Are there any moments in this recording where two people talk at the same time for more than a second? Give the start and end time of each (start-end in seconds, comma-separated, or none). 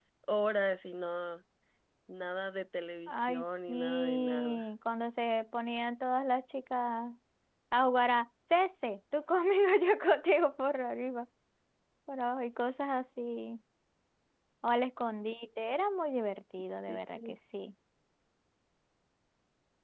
3.1-4.7